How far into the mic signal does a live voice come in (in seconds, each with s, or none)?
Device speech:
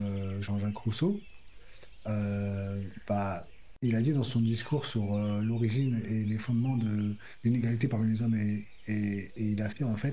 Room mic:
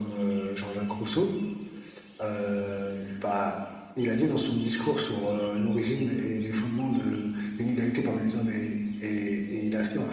none